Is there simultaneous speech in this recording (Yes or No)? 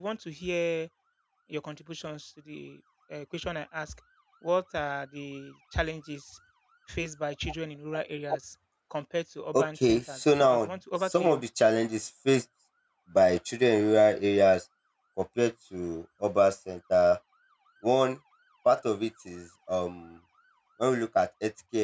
Yes